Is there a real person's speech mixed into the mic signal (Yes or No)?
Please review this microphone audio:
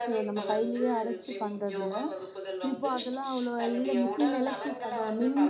Yes